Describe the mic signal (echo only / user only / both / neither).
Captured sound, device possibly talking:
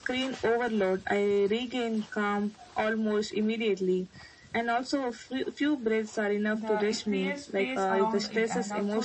both